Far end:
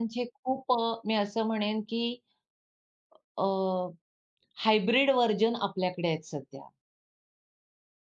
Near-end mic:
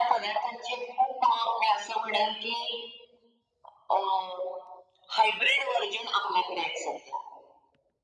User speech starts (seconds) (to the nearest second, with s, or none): none